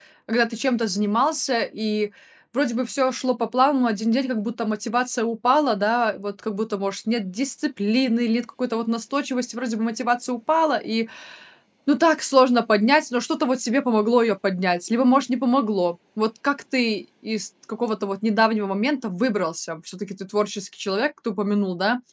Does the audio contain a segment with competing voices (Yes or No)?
No